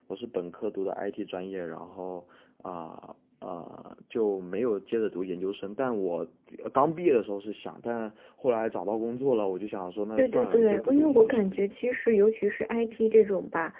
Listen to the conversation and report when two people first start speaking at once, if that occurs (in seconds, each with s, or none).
10.2 s